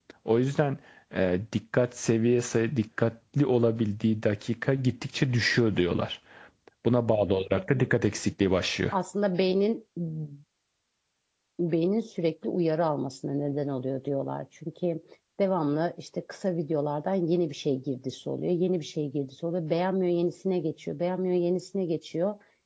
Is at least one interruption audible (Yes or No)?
No